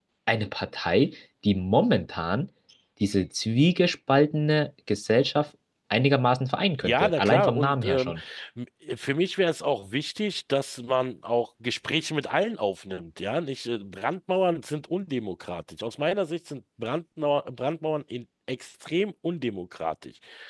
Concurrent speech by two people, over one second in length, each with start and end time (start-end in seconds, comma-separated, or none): 6.8-8.1